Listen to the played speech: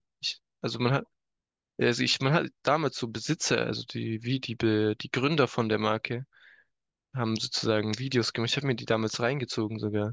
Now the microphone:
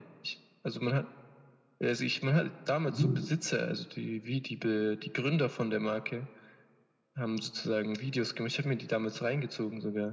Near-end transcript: Mhm.

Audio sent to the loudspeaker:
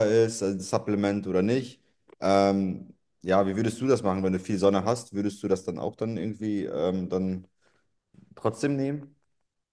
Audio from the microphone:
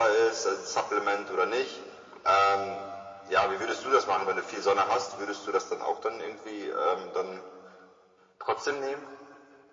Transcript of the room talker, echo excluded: none

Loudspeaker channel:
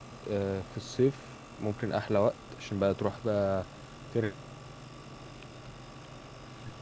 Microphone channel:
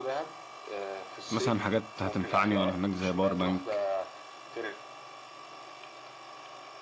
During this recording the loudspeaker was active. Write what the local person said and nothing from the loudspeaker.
مثلا حاجات هتنفعني وأنا هناك زي باور بانك

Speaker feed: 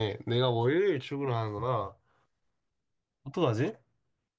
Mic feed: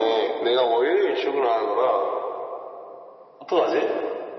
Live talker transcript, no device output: none

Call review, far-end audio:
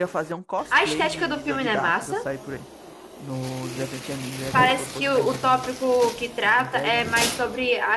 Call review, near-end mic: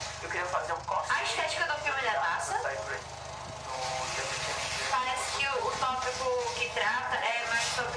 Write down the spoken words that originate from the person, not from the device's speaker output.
none

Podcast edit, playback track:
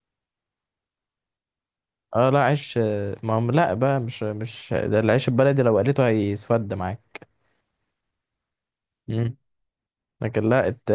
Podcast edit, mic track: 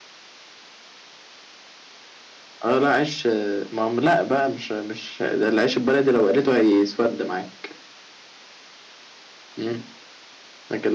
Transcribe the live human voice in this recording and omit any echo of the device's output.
none

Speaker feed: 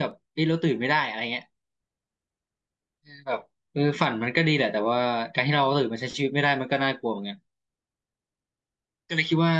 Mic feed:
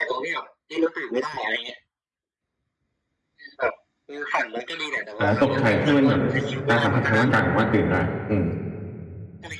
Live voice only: อ่าตกใจถ้าเป็นแบบการสัมผัสทางร่างกายผมว่าตื่นได้อืม

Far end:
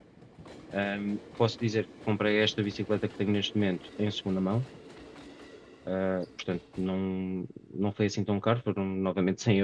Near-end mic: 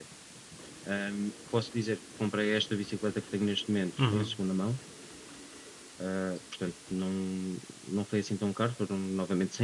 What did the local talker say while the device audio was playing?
Uhum,

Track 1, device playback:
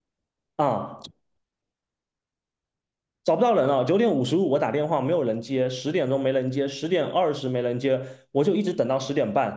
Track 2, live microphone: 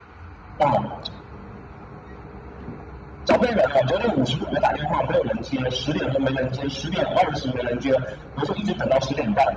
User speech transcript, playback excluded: none

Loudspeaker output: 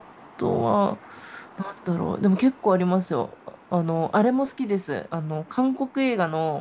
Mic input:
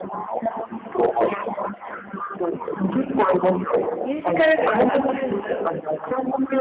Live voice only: ミュージカル部なんてあるんだ。

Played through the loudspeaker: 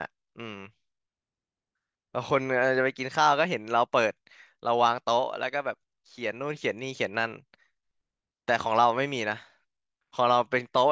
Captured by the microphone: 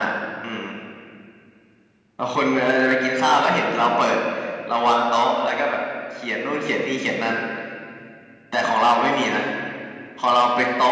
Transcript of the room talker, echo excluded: none

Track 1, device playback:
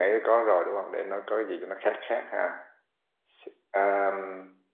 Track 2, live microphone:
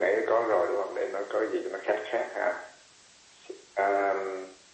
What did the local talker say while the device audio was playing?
none

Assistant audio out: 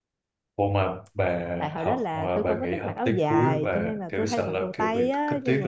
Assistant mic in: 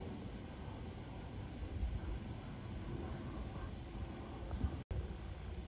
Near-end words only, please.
none

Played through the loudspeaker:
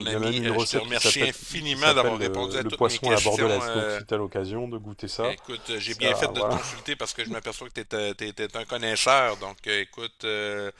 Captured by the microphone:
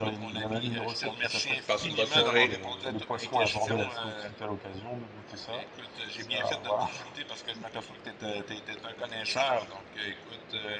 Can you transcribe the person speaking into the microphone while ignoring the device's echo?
Passe une bonne soirée.

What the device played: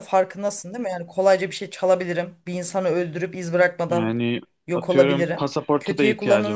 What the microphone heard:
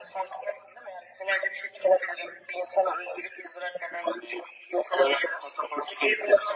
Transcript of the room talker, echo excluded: none

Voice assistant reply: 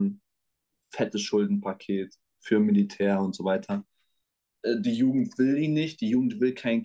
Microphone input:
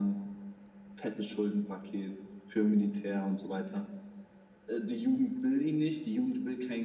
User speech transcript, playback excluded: none

